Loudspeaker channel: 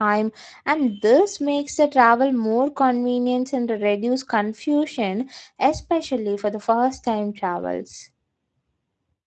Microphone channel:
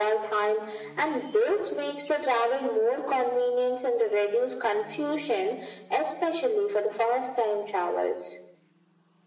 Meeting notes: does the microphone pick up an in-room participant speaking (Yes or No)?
No